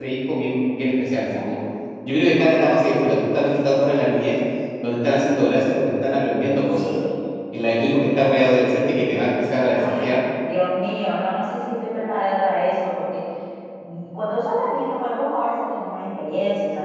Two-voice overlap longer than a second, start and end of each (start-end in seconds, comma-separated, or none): none